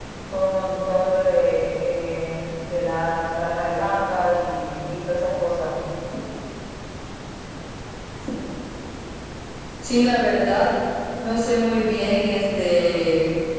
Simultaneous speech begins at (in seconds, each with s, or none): none